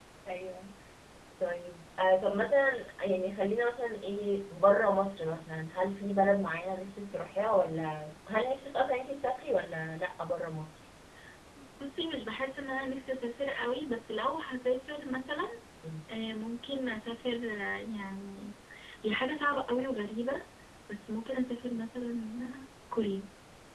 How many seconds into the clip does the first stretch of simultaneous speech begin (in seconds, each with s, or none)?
none